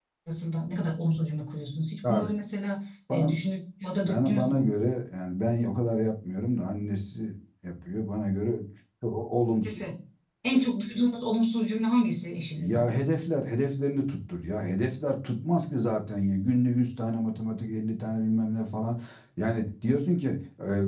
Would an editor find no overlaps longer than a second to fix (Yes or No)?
Yes